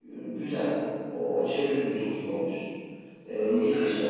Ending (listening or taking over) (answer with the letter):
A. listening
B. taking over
A